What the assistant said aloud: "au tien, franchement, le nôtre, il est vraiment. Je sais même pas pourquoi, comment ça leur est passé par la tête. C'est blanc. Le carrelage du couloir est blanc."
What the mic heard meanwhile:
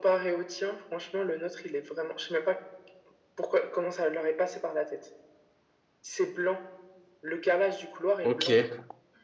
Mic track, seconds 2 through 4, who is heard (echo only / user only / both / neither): echo only